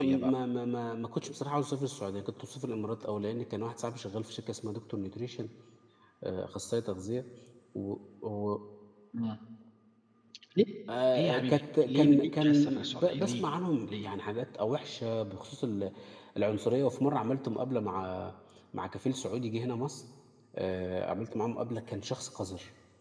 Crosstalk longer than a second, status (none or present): present